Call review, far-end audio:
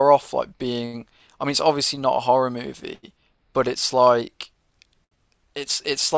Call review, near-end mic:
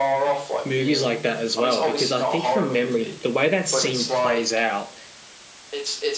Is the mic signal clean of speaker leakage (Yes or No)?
No